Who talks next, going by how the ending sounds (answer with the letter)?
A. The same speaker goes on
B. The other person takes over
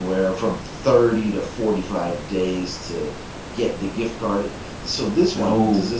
A